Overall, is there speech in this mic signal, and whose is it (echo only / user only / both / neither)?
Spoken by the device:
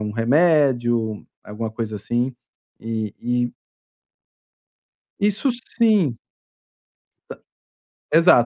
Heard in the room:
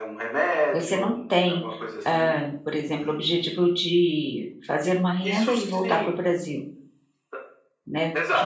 both